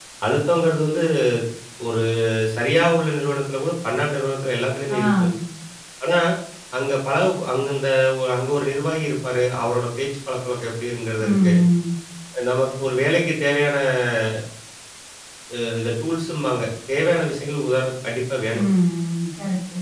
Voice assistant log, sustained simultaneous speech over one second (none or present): none